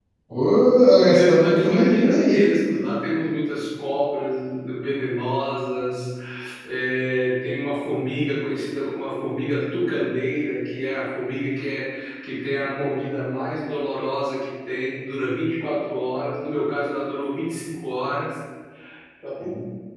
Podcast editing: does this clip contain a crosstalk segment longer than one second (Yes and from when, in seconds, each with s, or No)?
Yes, from 1.1 s